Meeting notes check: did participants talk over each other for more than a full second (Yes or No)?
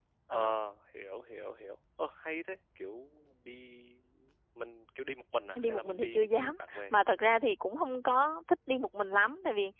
Yes